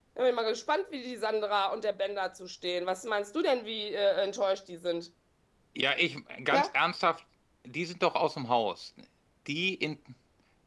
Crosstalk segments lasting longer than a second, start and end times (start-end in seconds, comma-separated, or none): none